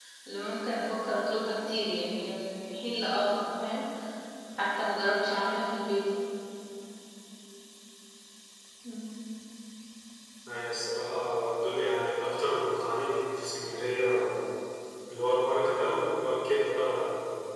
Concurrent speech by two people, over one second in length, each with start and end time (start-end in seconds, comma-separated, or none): none